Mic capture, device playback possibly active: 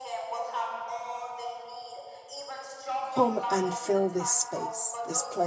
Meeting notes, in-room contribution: present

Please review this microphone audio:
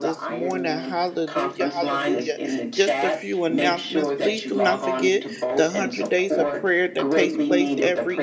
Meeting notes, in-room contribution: present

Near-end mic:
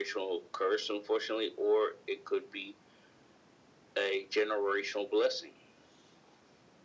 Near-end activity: none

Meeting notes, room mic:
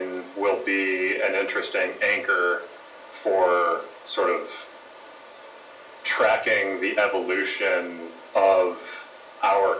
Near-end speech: none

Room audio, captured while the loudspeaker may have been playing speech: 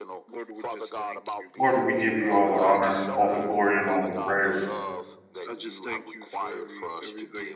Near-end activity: present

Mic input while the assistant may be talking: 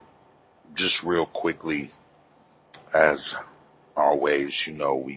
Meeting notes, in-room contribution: present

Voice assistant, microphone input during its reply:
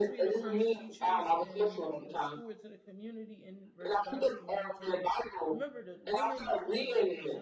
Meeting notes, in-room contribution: present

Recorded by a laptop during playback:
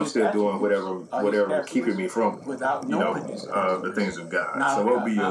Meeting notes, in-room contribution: none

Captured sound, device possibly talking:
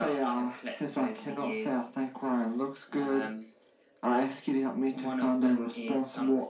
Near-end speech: none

